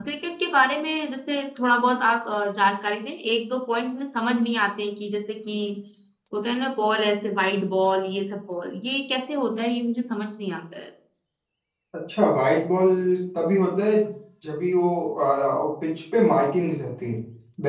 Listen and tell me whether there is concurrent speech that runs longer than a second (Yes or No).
No